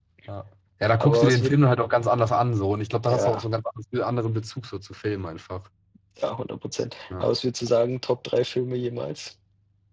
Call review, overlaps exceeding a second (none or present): none